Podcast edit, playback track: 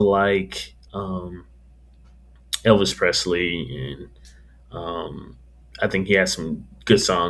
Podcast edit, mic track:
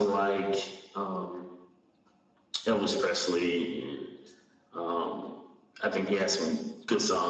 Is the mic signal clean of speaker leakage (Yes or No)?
No